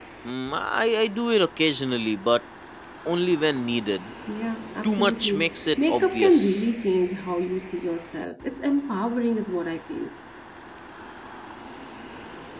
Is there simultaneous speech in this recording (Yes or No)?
Yes